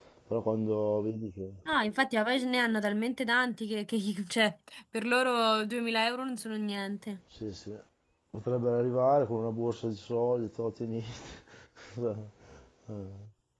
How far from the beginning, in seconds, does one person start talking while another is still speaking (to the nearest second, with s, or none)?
none